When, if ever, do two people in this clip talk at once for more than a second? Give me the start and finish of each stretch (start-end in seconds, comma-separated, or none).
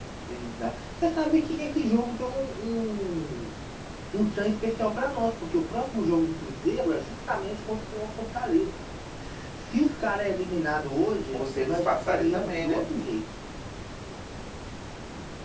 11.3-12.8